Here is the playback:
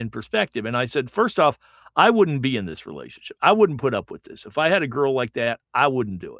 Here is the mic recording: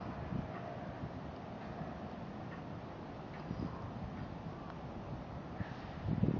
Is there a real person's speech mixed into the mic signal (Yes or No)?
No